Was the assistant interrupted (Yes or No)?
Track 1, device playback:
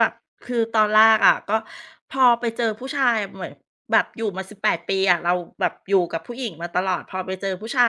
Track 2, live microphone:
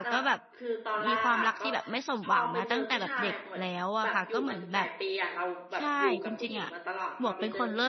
Yes